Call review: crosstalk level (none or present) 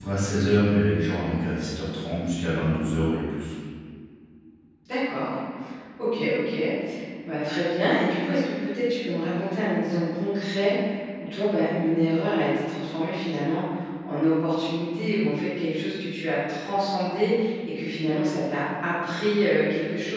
none